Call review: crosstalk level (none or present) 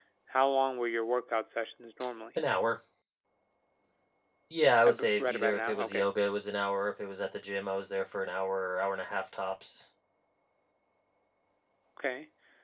present